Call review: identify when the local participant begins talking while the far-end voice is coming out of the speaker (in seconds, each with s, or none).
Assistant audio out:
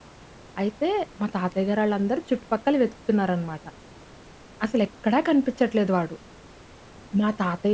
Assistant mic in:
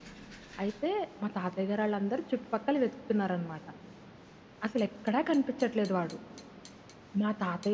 none